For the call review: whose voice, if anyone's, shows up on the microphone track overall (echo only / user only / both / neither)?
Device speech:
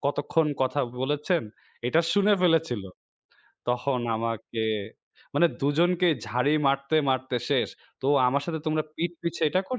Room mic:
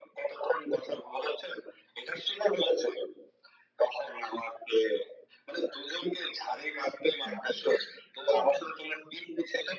both